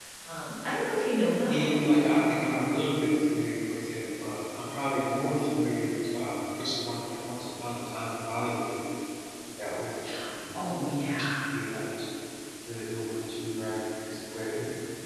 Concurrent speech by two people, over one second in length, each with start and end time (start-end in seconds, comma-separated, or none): none